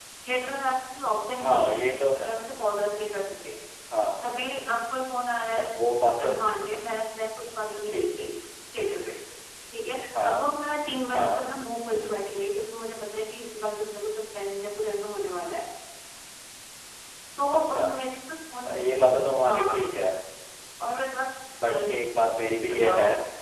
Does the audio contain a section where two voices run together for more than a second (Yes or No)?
No